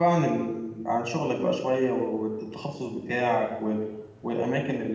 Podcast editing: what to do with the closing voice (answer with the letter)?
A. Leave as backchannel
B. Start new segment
A